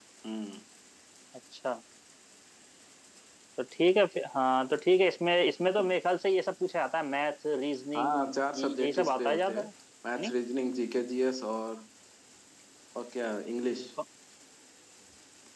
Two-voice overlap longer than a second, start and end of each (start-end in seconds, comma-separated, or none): 8.0-9.7